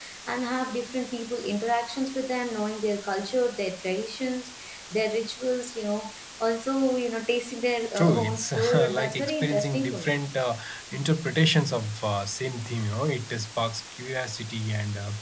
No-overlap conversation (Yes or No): No